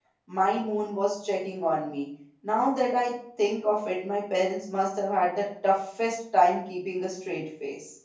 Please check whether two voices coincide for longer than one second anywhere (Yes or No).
No